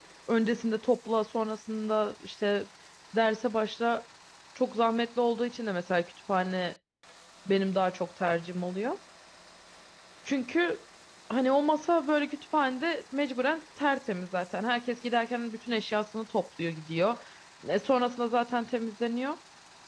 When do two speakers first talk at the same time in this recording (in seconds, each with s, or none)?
none